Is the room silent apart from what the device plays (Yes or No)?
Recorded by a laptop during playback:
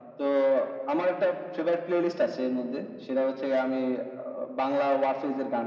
Yes